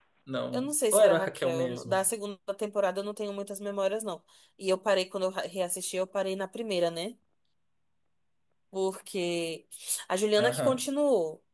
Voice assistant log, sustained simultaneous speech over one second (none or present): present